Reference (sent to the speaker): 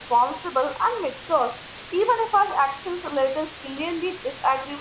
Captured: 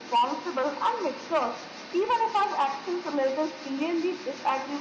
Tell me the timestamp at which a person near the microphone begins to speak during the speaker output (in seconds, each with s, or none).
none